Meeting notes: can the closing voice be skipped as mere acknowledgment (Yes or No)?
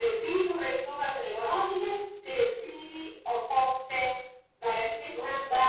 Yes